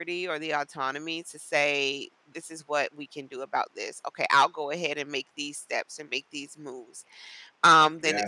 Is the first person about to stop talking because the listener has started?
No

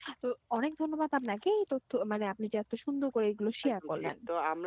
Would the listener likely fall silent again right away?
No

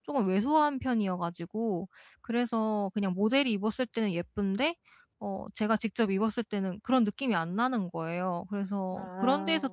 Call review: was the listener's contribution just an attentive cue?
Yes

